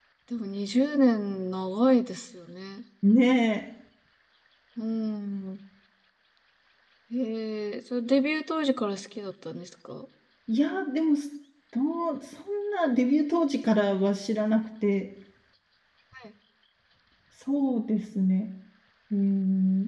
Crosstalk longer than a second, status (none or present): none